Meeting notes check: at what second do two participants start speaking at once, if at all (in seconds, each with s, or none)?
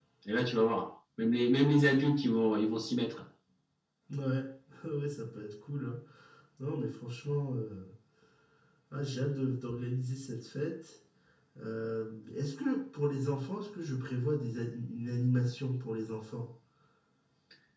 none